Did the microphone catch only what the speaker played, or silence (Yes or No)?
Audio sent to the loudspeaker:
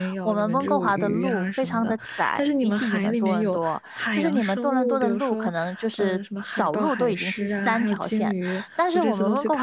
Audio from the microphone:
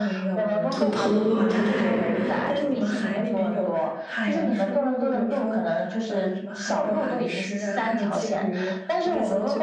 No